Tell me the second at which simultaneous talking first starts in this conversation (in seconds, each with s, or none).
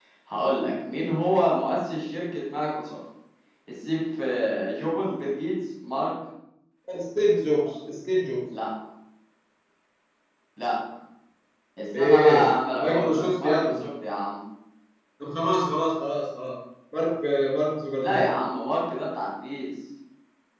11.9 s